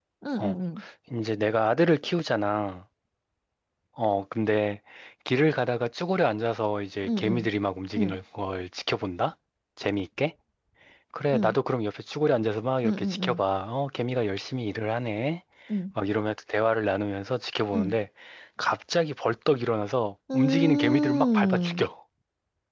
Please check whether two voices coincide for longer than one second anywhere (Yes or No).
Yes